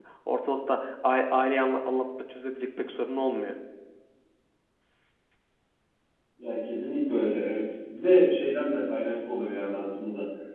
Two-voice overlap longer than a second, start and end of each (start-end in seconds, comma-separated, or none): none